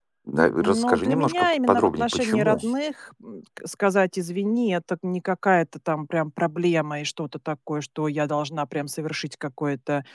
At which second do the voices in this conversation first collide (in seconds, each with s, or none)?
0.6 s